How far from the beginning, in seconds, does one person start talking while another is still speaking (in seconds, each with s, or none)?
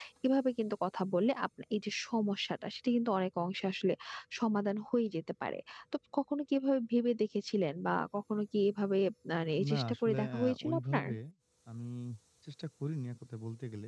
9.6 s